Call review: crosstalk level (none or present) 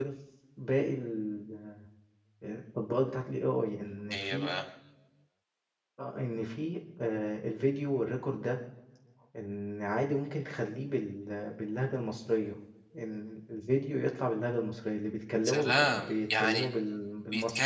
present